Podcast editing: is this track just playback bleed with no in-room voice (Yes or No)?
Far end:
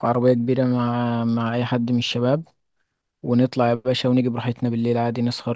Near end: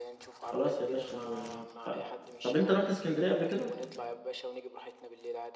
No